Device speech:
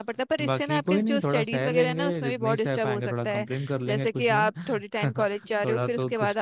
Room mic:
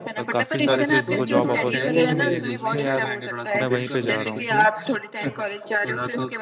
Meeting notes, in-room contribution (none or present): present